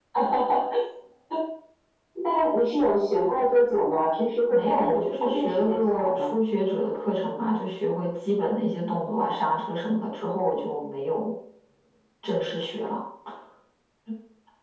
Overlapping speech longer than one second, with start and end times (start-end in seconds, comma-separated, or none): 4.5-6.3